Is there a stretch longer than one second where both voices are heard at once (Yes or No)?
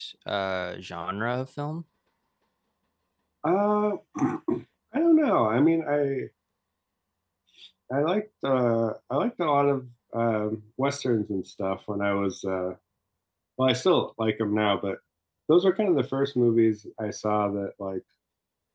No